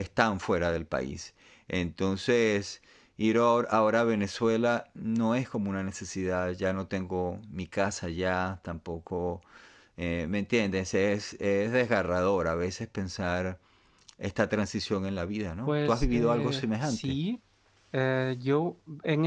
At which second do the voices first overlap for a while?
16 s

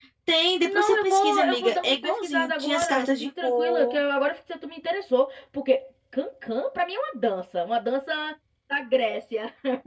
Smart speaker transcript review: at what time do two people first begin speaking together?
1 s

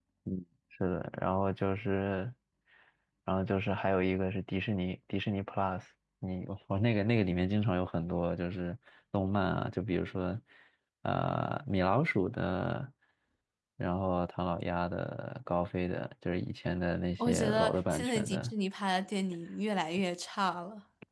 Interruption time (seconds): 17 s

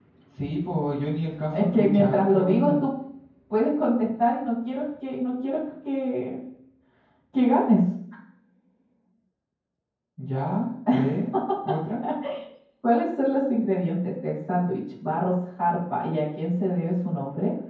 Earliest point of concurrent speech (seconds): 2 s

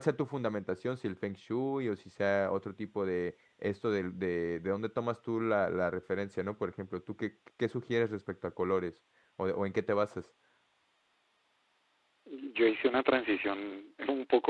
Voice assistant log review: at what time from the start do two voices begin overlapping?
none

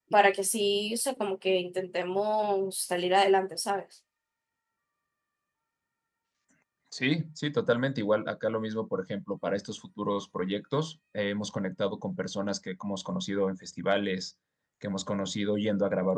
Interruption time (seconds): none

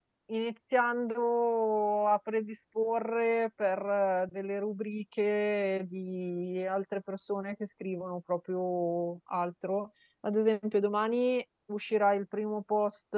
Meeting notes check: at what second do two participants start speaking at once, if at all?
none

